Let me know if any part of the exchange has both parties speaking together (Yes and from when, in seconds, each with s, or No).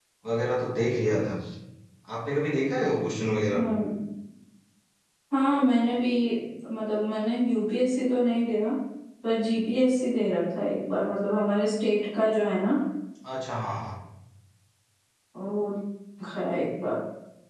No